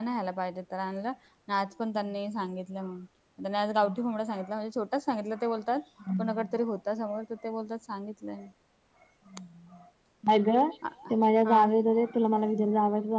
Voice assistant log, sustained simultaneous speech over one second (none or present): none